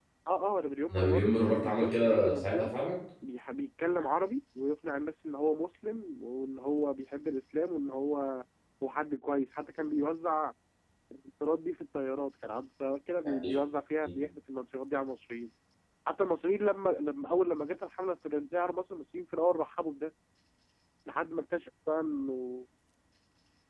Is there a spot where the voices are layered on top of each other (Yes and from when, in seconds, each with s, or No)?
Yes, from 0.9 s